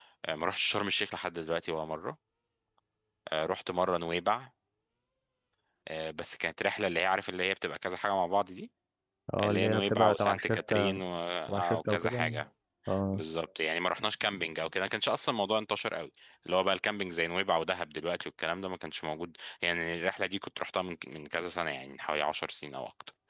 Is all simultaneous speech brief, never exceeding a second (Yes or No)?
No